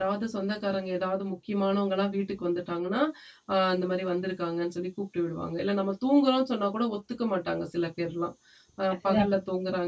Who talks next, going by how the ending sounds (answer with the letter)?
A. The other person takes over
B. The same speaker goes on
B